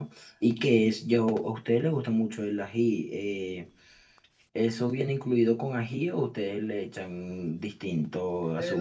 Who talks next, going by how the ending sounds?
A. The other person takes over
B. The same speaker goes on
A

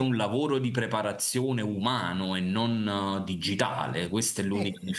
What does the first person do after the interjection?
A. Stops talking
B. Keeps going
B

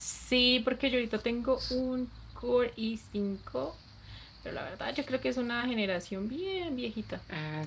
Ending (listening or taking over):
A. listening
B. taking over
B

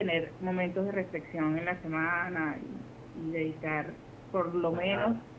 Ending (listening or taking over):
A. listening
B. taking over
A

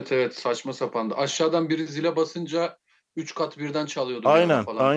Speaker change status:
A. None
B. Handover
B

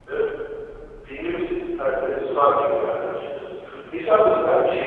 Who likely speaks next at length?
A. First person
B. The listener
A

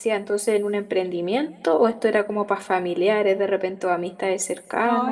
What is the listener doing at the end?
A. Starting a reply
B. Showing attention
A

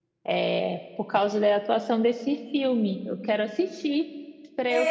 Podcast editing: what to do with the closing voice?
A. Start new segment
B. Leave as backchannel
A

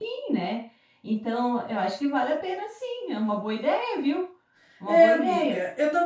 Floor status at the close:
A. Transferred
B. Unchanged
A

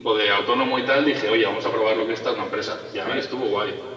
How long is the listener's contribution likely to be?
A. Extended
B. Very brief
B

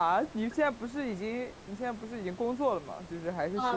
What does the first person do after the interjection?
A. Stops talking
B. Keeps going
A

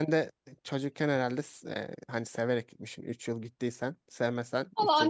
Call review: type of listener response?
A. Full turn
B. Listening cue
A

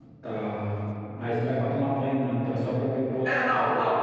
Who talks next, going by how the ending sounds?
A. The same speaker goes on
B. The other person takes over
B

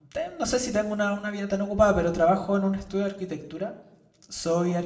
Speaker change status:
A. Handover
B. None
B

